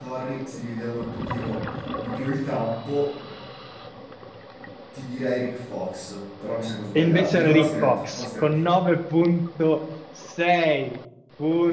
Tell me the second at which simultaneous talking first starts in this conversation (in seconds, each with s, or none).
7.0 s